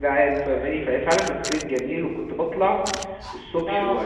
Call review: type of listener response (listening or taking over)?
listening